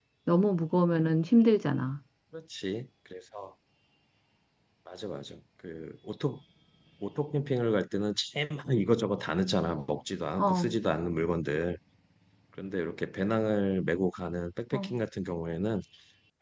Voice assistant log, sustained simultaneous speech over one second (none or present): none